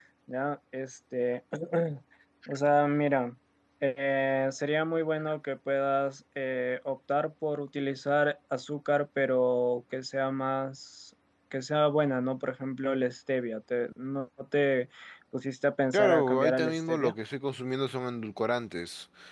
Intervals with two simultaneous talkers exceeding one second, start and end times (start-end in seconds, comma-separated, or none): 15.9-17.1